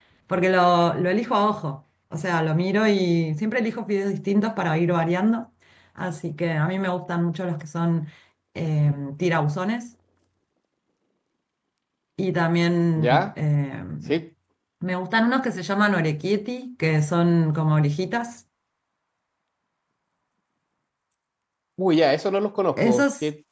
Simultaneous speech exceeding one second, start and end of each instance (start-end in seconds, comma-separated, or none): none